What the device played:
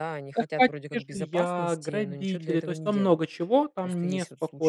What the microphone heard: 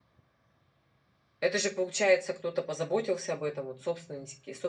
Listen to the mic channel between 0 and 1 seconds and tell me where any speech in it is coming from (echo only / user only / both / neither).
neither